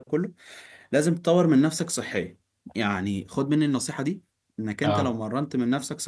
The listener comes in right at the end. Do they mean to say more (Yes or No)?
No